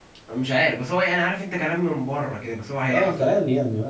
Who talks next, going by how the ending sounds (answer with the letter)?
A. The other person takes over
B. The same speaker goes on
A